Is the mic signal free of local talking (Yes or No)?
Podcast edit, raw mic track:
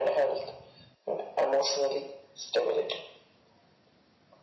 Yes